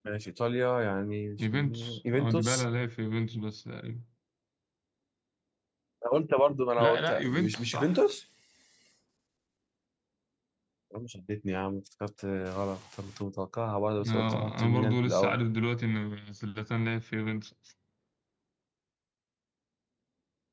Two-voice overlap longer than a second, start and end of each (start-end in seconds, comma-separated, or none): 1.4-2.6, 6.8-8.0, 14.1-15.4